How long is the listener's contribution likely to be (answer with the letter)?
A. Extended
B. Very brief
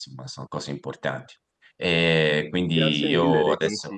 A